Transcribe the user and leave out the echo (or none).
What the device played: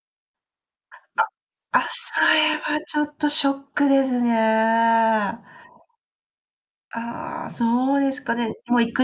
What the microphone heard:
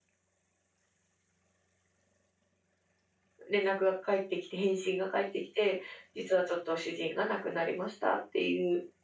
連絡が返ってきて返信が返ってきて「実はちょっと主人が亡くなりました」っていう。